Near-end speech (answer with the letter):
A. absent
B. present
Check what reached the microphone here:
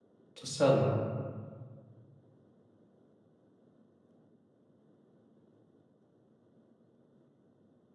B